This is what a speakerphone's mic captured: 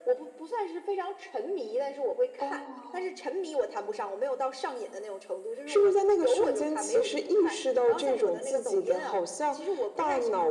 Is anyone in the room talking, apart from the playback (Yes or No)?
No